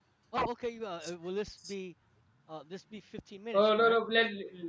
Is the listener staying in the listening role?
No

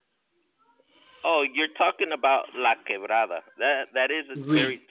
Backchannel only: Yes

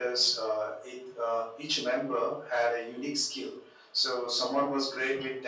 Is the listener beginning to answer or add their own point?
No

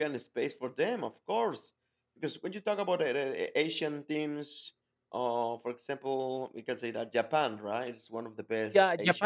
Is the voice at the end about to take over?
Yes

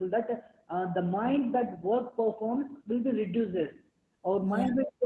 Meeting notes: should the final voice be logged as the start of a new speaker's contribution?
No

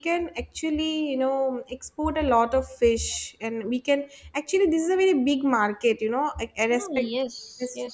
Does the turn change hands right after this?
Yes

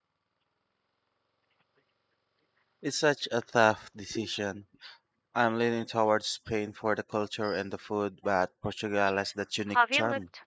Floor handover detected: Yes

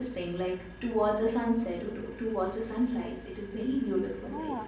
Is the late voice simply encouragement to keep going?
No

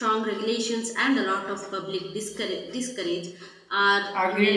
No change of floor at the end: No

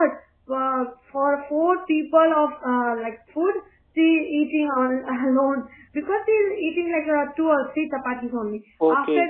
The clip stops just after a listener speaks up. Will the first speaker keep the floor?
Yes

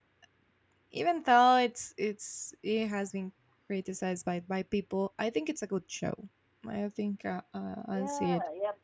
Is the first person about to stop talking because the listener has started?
Yes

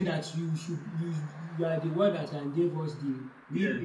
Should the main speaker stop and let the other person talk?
Yes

